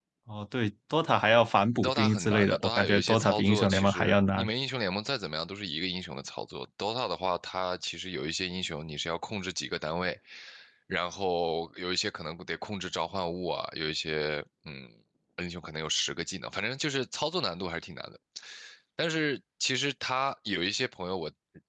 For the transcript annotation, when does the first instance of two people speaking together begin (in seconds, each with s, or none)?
1.7 s